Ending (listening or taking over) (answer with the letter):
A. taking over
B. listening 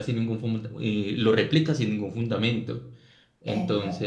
B